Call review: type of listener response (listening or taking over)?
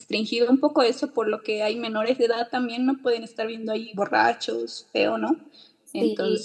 taking over